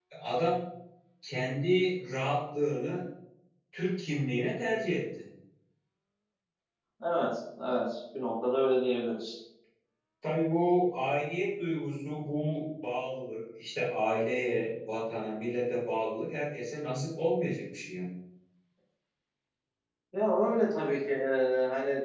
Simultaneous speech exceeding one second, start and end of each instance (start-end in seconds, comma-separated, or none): none